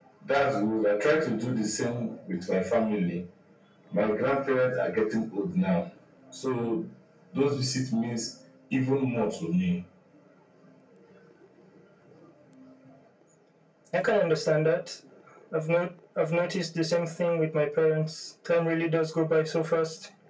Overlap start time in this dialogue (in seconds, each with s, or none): none